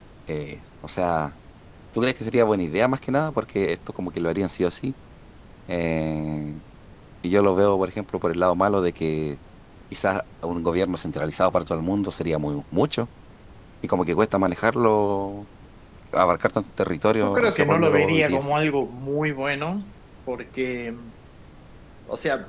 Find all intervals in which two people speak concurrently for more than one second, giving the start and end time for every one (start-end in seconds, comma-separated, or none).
17.2-18.5